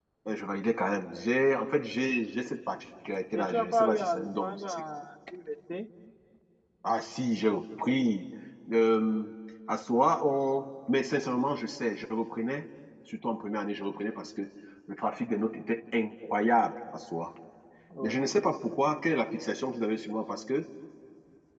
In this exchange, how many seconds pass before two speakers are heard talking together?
3.3 s

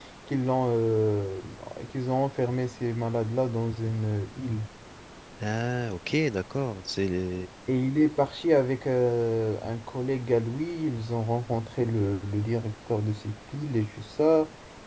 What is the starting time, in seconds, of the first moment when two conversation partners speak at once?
none

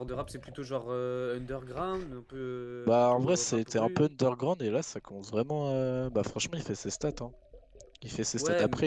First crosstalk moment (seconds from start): 2.9 s

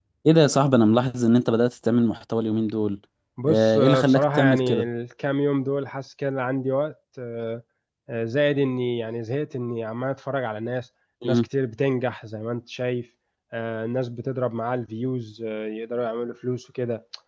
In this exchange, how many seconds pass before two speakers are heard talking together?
3.5 s

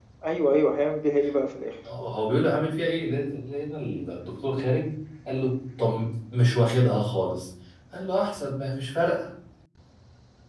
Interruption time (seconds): none

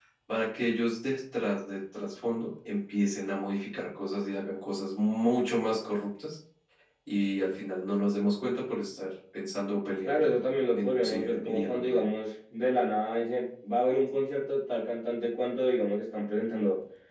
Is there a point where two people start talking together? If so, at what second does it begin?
10.1 s

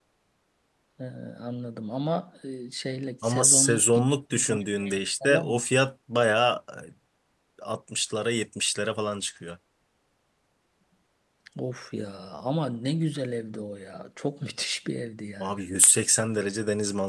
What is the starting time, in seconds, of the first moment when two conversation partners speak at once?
3.2 s

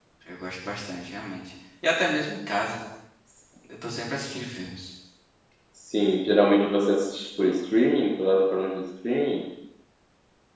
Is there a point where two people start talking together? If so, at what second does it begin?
none

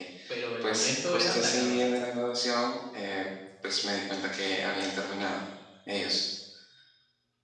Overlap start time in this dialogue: 0.6 s

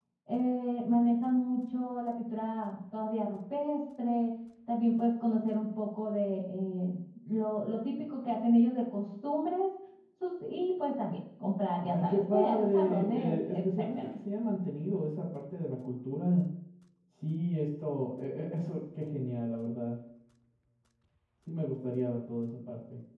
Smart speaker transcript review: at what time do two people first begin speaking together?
11.8 s

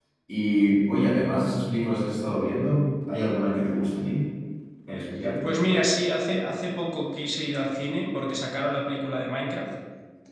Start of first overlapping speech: none

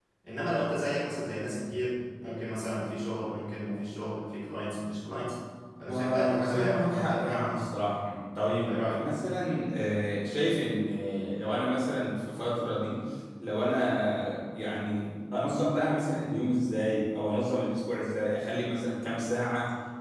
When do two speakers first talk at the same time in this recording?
5.9 s

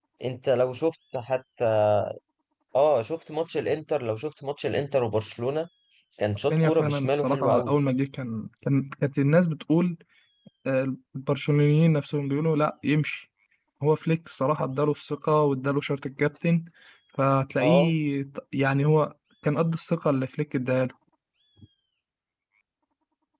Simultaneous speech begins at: 6.5 s

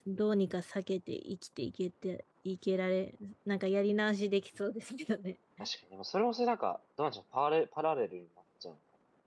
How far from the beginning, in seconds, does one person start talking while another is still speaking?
none

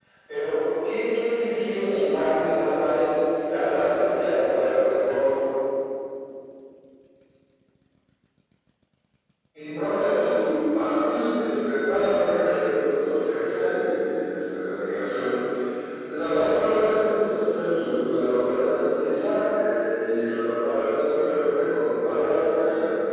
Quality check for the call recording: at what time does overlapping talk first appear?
none

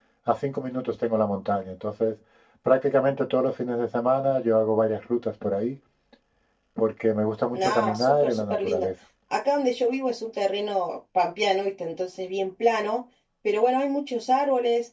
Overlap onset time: 7.5 s

